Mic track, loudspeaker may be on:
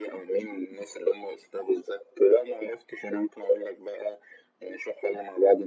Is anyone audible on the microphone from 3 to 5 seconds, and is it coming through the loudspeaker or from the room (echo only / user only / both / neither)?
echo only